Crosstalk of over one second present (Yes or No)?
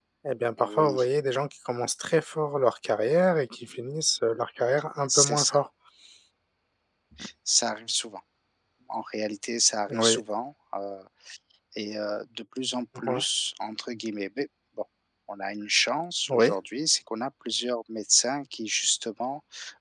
No